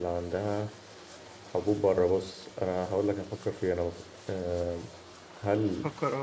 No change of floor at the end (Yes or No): Yes